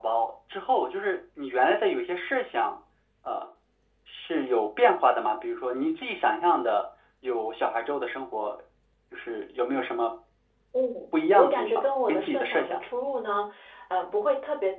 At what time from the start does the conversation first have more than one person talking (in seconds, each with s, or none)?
11.3 s